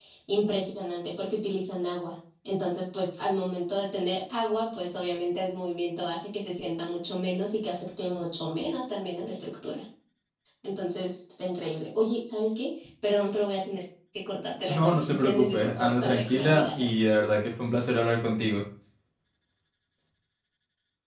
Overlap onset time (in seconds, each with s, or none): 14.7 s